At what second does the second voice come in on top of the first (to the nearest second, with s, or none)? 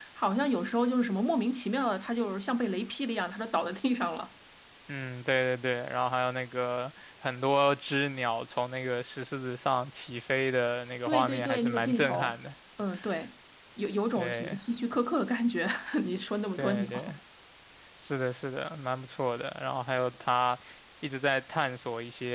11 s